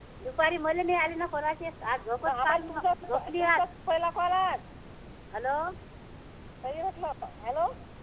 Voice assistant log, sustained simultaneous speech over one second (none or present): present